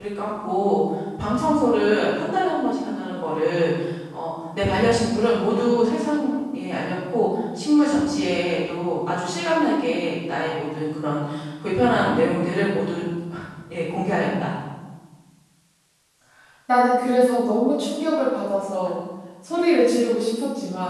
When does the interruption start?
none

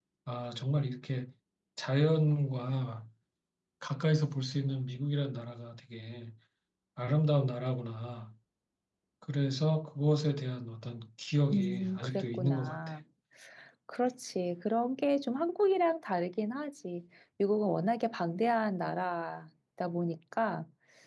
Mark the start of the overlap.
11.5 s

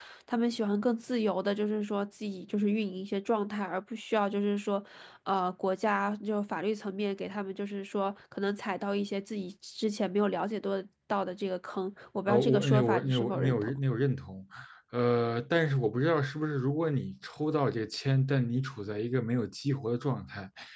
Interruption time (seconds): 12.3 s

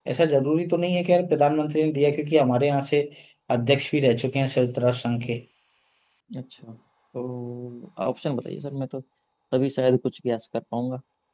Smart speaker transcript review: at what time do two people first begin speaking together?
none

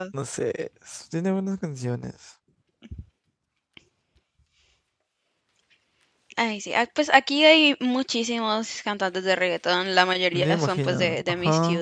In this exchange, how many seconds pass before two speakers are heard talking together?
10.3 s

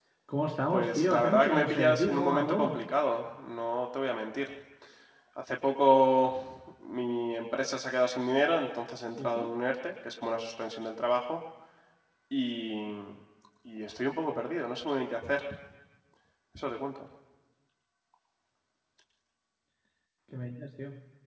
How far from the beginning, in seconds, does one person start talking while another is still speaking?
0.7 s

